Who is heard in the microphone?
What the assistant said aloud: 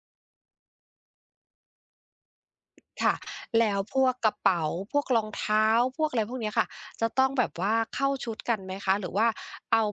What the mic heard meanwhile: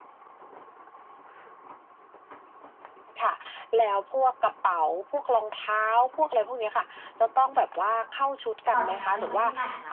both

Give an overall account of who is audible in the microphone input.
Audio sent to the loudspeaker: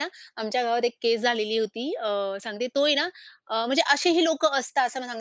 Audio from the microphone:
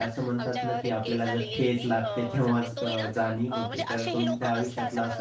both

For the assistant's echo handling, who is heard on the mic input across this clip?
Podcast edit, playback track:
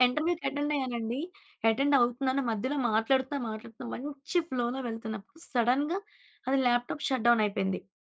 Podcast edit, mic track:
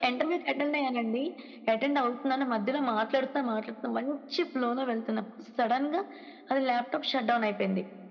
echo only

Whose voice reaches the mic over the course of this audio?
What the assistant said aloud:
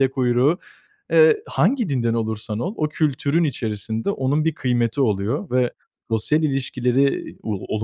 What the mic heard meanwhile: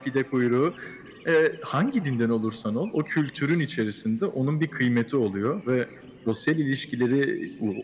echo only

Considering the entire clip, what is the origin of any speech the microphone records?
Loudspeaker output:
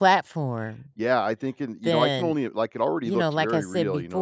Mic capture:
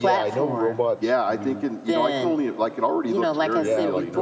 both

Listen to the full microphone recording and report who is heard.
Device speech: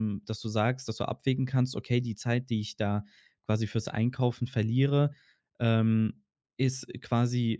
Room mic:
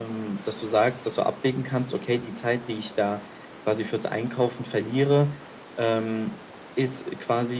echo only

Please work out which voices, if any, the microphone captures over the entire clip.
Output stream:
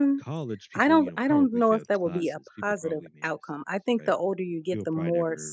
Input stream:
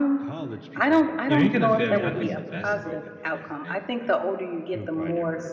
both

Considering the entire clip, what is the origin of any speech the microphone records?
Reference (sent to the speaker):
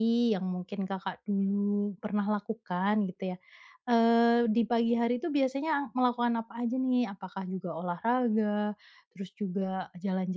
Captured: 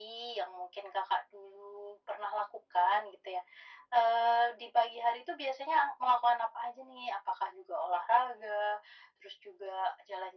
echo only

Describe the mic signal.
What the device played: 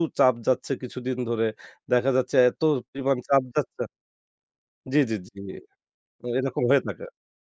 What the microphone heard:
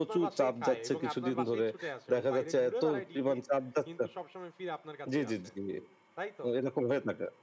both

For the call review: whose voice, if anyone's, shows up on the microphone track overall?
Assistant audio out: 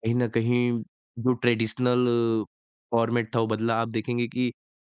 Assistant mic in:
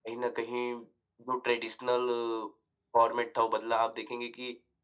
echo only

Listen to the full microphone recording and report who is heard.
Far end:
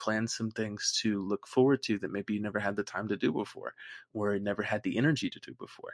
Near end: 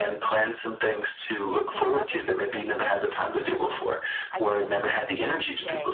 both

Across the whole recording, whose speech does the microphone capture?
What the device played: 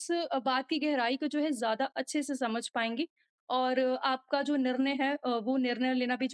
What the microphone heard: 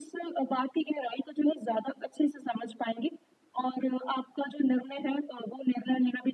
echo only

